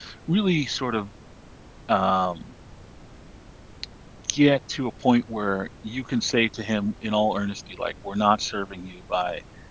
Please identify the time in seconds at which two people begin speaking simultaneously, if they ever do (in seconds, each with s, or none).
none